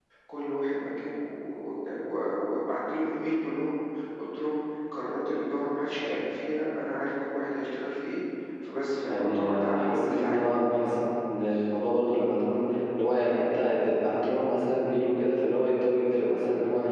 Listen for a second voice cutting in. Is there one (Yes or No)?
Yes